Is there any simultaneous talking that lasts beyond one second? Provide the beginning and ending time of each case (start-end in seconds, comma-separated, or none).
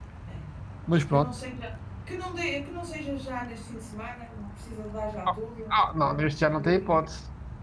5.7-7.0